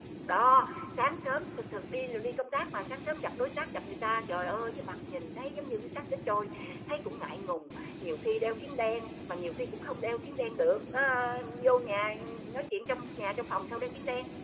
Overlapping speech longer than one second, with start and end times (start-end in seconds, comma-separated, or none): none